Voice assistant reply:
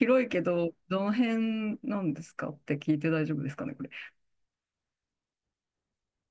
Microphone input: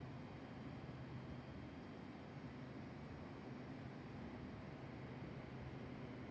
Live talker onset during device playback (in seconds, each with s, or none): none